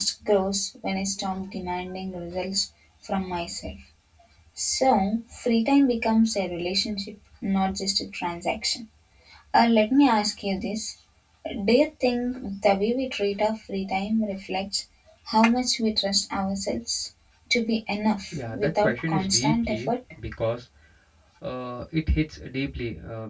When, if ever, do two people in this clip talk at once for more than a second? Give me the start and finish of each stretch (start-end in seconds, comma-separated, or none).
18.4-19.8